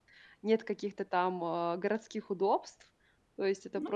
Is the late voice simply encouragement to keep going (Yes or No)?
Yes